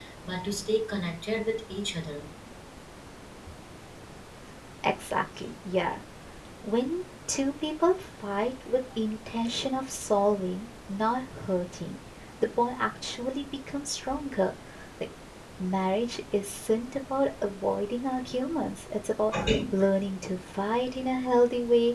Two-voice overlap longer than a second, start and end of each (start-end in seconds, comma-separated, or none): none